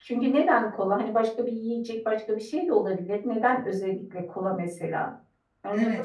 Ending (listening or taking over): taking over